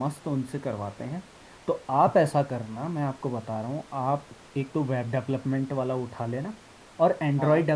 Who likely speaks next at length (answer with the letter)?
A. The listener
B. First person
B